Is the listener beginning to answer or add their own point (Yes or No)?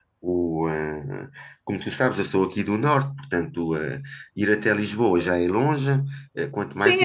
Yes